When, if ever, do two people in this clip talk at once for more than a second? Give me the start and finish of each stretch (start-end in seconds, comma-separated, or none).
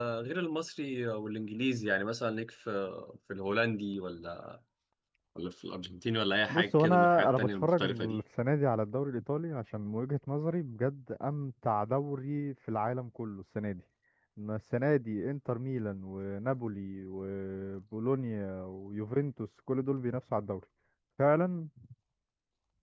6.5-8.2